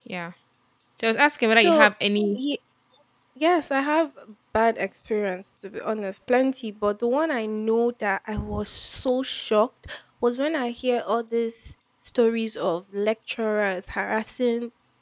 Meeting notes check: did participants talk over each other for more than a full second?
No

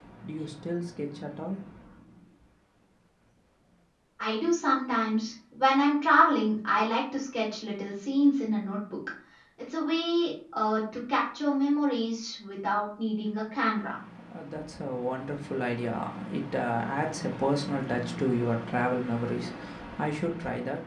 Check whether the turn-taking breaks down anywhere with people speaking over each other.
No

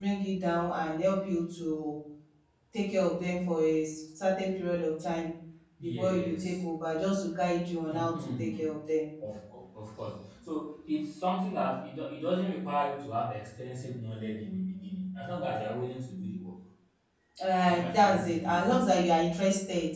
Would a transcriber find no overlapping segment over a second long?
No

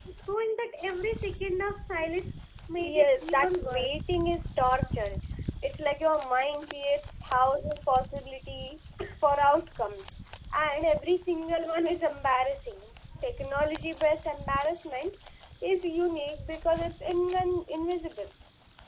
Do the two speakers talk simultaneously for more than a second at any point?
Yes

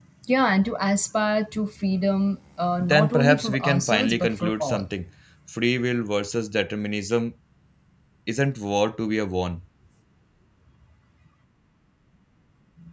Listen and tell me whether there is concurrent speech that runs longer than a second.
Yes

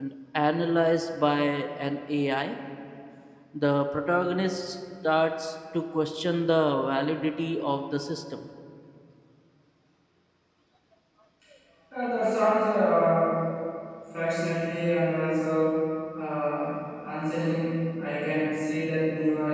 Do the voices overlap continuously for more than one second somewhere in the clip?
No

